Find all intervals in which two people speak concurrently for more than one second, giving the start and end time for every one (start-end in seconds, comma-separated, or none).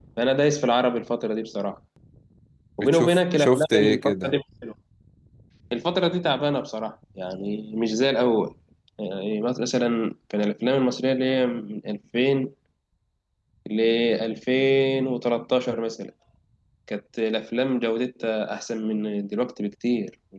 2.8-4.3